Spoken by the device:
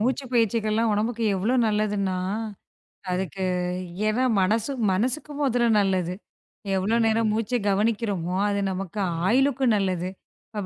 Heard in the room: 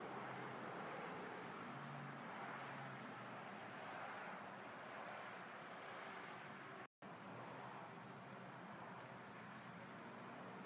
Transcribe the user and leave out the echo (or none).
none